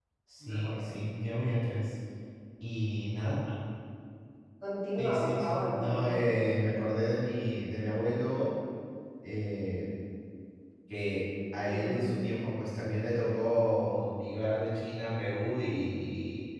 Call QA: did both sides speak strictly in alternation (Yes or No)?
No